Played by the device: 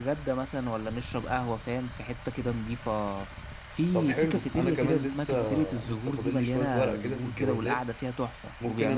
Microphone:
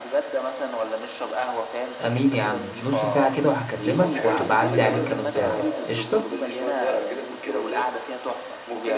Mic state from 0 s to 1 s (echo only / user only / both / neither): echo only